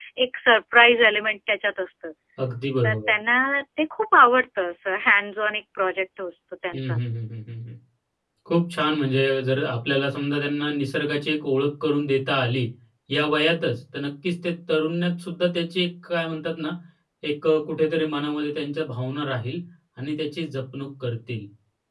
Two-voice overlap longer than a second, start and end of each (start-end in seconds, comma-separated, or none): none